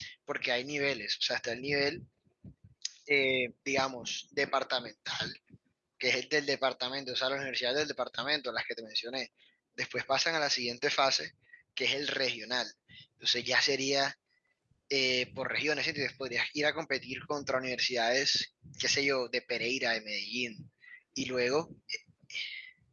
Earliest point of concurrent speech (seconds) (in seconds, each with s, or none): none